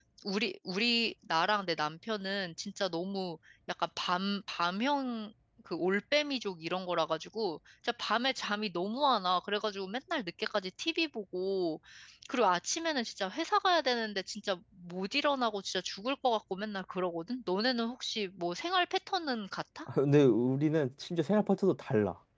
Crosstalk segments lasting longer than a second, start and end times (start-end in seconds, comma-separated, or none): none